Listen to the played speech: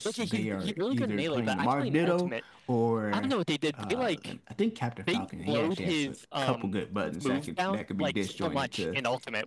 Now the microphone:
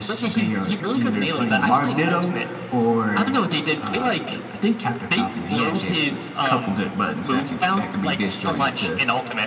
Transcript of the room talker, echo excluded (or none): none